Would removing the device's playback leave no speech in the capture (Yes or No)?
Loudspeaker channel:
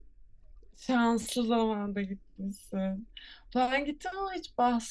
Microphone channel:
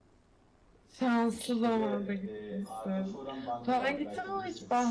No